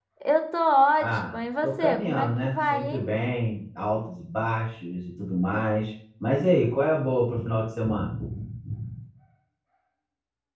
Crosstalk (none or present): present